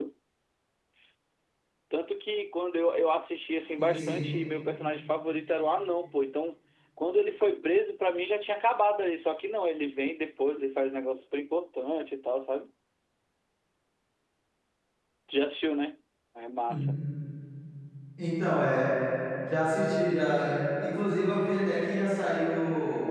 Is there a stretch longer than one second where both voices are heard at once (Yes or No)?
No